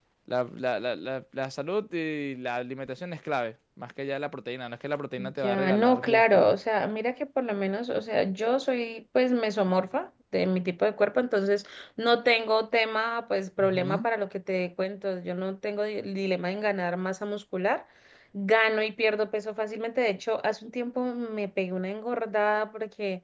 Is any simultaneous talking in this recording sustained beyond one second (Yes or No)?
Yes